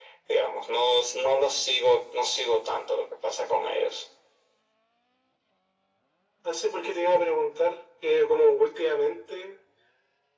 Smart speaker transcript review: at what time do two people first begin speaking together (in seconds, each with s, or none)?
none